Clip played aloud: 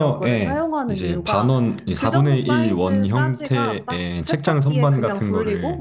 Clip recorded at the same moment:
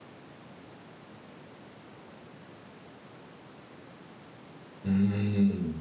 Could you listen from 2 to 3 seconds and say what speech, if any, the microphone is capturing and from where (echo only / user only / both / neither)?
neither